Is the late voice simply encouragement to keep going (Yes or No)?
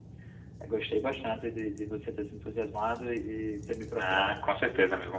No